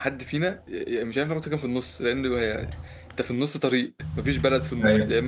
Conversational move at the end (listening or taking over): listening